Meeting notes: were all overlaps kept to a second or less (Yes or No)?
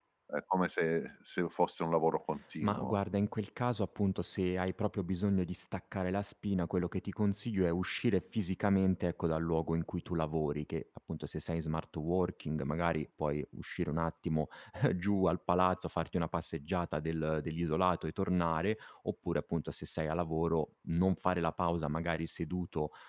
Yes